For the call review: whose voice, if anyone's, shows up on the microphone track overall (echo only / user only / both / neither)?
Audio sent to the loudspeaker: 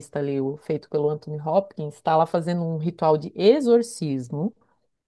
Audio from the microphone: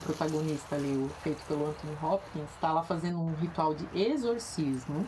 echo only